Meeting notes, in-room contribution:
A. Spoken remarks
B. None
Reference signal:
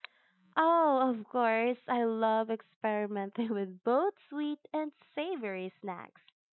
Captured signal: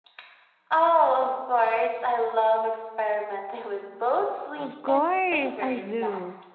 A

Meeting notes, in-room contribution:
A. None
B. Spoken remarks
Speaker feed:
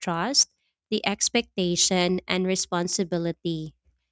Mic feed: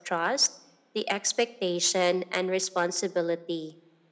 A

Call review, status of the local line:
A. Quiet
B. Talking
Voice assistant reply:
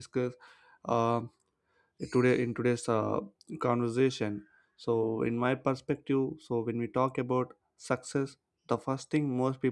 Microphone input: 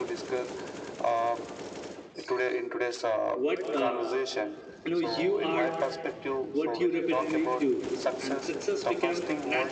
B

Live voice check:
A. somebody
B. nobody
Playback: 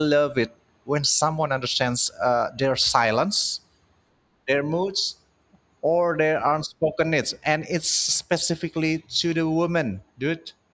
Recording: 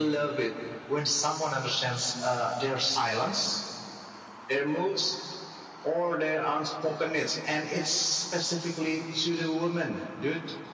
B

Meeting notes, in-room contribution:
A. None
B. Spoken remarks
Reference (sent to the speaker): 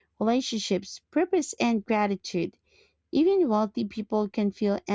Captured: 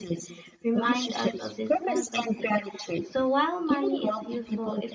B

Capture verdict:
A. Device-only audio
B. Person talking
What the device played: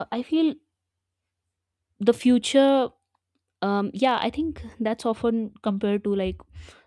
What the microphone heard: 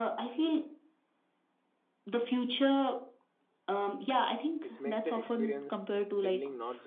B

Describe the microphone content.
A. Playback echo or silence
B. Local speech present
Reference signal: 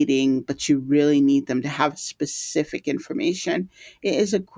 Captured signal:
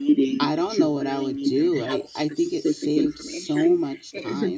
B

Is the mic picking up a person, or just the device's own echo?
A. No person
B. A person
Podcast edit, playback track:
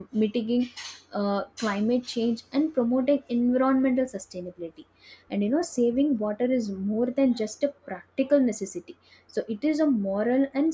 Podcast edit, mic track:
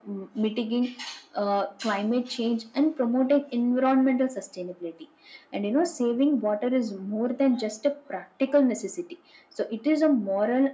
A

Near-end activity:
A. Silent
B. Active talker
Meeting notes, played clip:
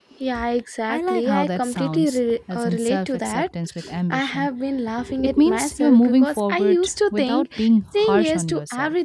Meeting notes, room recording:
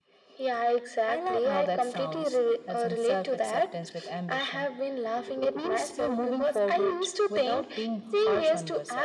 A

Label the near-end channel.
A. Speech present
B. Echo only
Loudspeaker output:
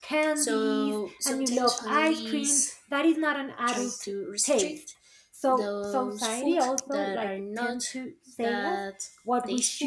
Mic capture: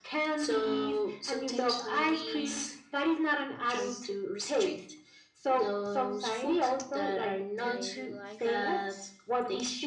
A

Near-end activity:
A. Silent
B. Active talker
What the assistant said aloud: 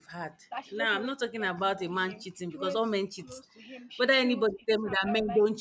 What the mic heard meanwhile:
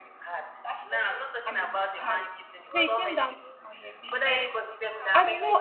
B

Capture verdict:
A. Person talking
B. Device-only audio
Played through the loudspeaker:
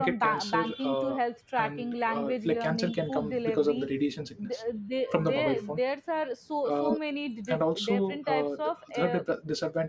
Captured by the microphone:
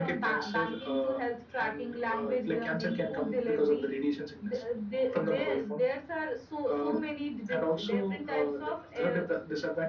B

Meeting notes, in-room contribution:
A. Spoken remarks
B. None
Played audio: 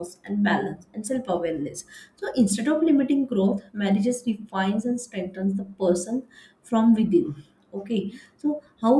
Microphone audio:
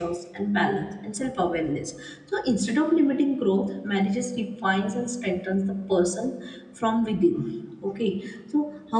B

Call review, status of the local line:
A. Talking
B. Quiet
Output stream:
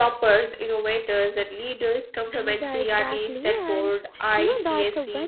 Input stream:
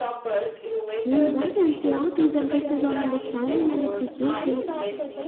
A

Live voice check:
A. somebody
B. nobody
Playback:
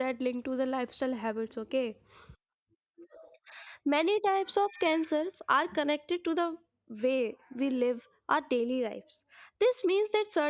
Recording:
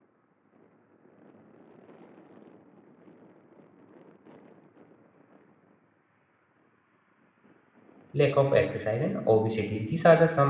A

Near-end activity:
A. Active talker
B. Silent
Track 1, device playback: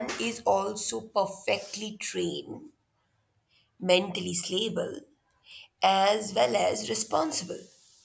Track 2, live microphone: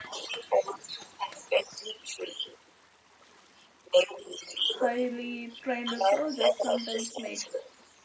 A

